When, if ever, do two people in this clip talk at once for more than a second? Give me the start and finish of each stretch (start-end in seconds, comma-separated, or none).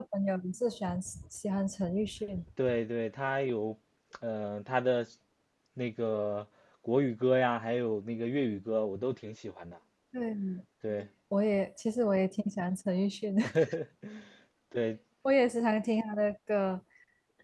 none